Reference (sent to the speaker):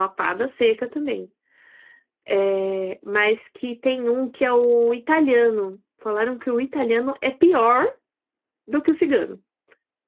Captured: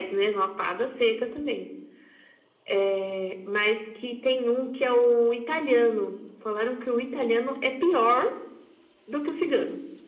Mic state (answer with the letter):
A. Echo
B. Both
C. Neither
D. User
A